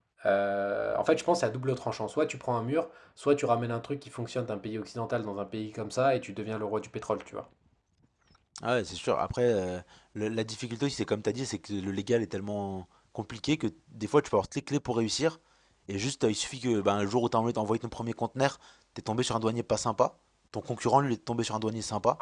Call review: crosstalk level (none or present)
none